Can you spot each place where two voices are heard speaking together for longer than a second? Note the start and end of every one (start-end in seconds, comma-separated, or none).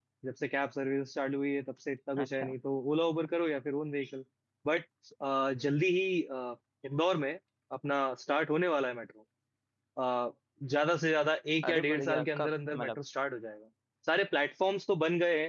11.6-13.0